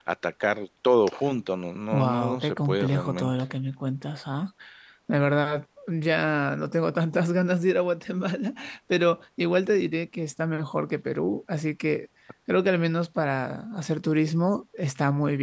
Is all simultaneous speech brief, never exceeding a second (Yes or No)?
No